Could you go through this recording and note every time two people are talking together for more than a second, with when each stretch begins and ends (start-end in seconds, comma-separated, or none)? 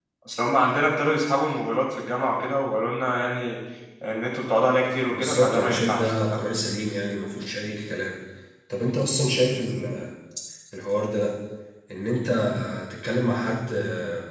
5.1-6.4